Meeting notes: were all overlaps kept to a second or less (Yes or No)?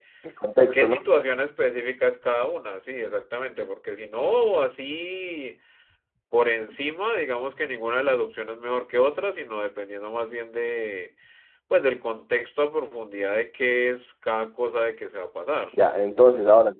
Yes